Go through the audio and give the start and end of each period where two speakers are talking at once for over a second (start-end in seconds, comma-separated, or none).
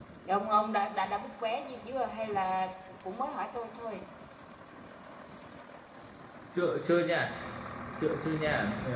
none